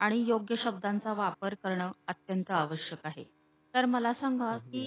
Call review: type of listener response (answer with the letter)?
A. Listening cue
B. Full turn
A